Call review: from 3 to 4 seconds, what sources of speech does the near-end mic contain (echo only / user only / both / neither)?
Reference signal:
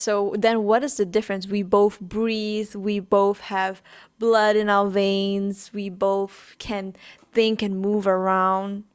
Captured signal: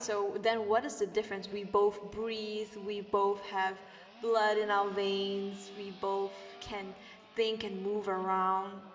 echo only